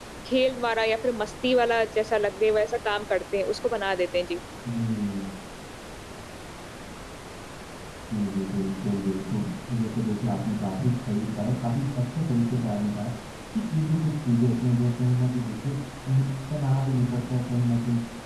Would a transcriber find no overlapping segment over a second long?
Yes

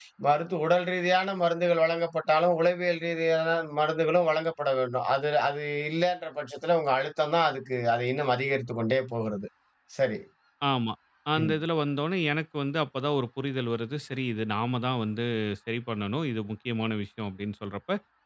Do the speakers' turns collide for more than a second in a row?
No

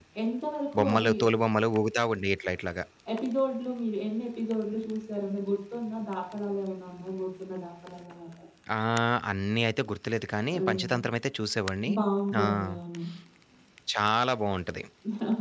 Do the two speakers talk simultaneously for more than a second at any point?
No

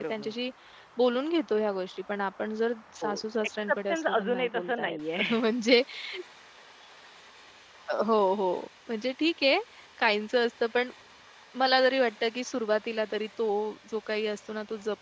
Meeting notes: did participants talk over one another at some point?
Yes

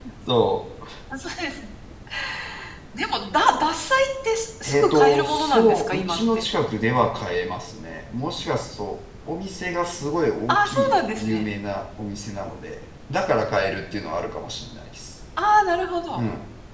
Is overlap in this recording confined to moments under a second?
No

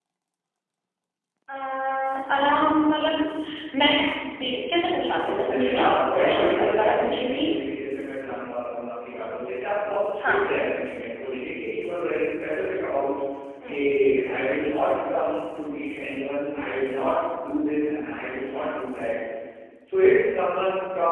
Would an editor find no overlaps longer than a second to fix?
No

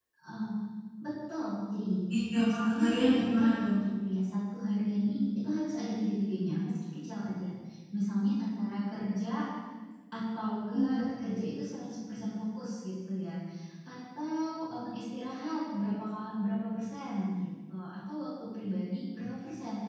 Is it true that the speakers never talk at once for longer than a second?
No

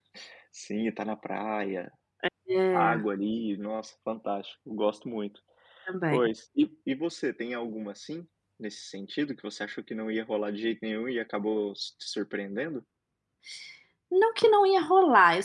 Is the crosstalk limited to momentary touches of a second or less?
Yes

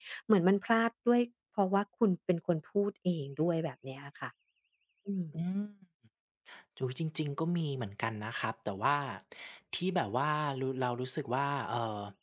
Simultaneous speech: No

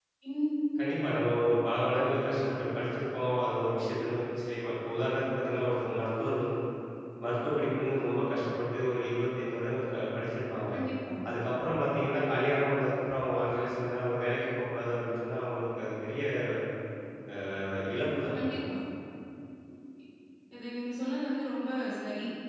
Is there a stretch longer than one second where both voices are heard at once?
No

